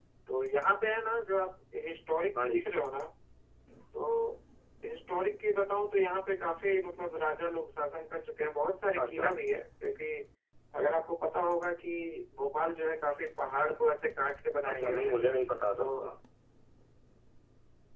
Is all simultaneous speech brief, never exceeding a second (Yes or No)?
Yes